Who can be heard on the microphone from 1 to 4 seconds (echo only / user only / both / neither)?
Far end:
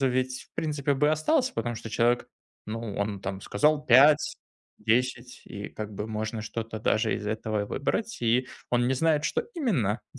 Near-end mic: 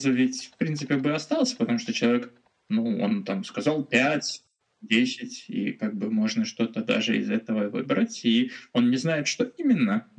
echo only